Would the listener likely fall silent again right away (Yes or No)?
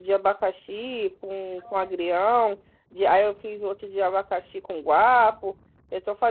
Yes